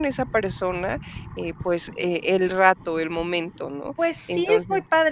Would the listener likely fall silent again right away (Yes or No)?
No